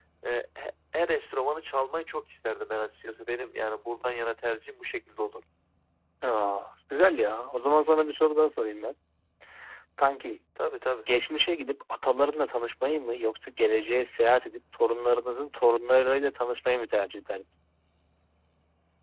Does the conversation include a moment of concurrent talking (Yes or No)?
No